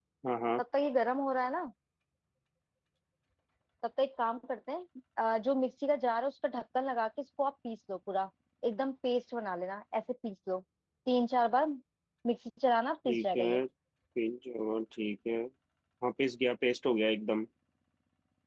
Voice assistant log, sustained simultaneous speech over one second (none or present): none